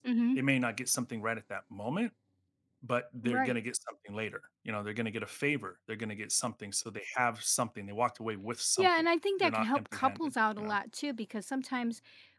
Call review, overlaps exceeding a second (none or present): present